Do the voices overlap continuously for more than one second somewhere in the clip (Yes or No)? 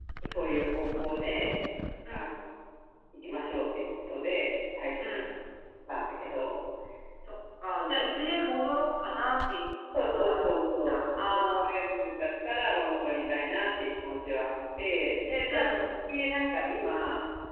Yes